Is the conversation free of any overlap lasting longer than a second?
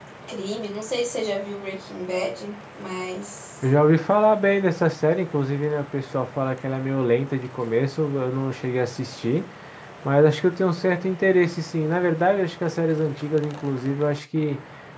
Yes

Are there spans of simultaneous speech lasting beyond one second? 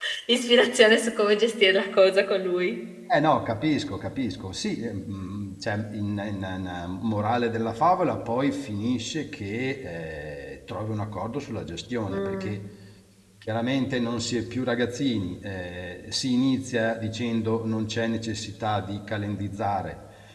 No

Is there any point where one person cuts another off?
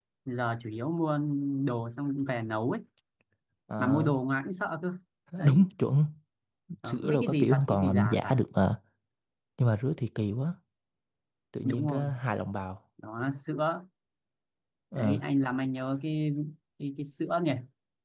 Yes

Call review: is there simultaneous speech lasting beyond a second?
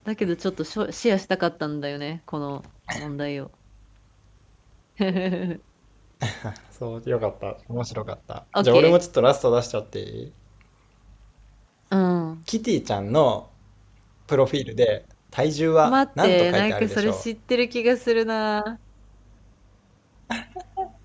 Yes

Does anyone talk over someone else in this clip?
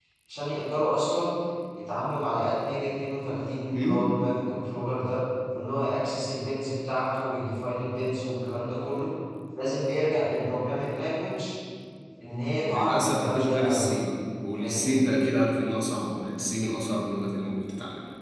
Yes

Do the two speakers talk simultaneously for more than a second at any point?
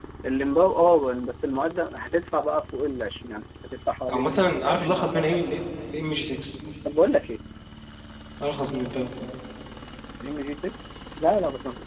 Yes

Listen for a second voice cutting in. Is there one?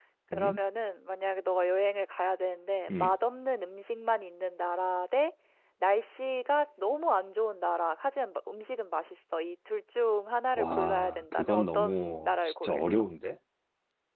Yes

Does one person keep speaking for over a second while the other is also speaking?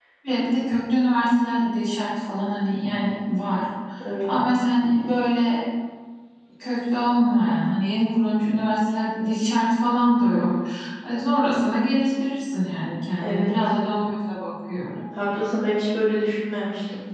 No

